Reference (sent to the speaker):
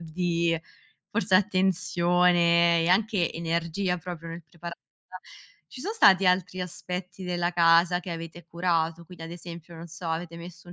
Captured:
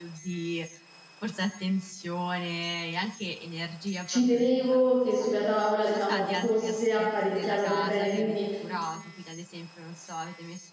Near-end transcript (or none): ci tenevo che sulla tavola, diciamo, fosse apparecchiata per bene, quindi,